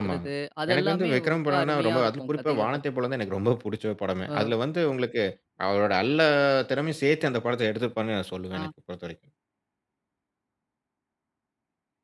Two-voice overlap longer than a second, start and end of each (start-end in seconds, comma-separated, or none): 0.7-2.8